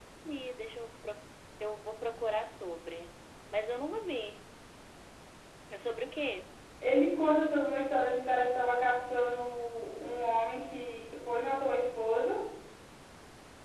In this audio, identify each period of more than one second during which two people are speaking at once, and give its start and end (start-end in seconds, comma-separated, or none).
none